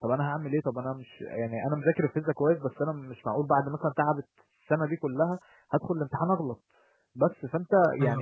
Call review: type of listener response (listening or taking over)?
listening